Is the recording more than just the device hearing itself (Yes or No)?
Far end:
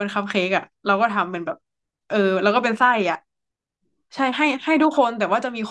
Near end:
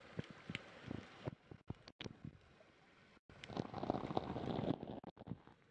No